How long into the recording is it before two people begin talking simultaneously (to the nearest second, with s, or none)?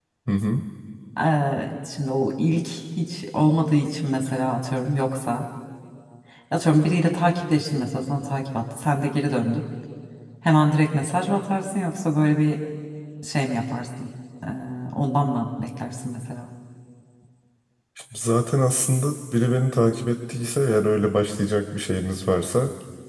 none